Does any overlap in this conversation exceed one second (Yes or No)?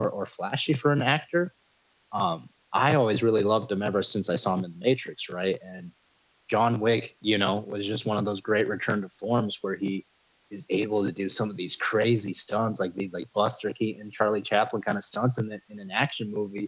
No